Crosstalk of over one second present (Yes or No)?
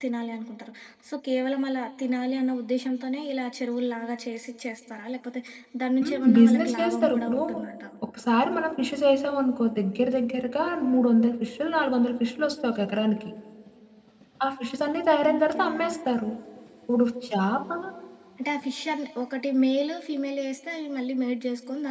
Yes